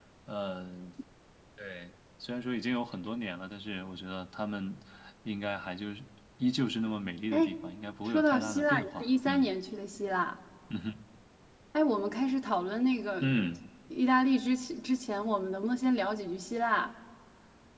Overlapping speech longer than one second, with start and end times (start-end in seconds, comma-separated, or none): 8.0-9.5